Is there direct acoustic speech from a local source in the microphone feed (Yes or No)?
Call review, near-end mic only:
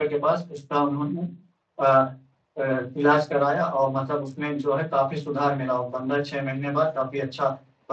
Yes